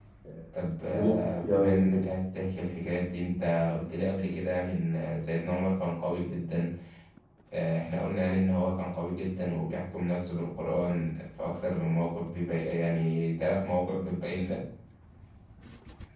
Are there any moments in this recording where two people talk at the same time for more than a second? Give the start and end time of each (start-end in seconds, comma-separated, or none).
0.6-2.0